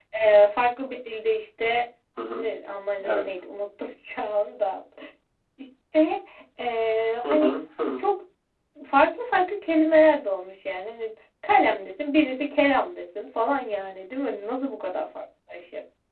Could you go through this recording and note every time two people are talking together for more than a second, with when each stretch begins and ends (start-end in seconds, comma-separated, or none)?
none